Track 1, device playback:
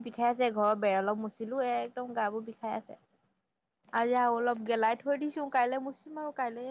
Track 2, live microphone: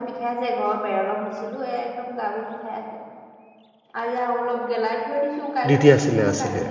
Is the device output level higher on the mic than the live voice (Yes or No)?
No